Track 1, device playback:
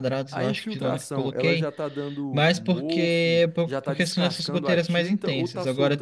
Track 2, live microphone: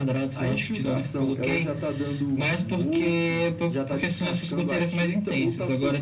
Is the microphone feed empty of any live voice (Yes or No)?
Yes